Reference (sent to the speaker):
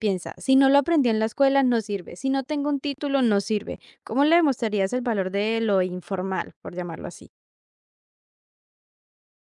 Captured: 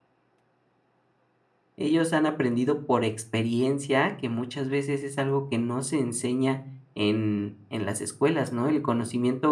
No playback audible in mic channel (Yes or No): Yes